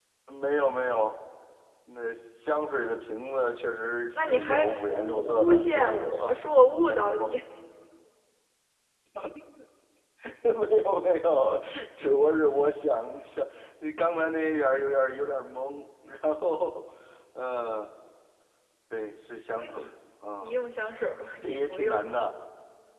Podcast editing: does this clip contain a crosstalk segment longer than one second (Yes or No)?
Yes